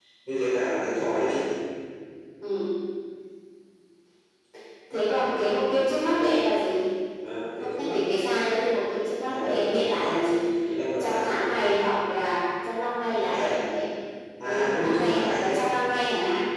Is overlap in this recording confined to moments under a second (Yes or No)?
No